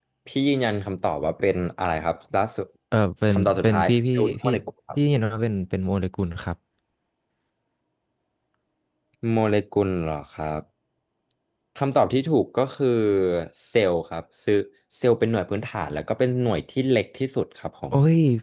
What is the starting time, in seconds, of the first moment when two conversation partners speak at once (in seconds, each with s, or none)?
3.3 s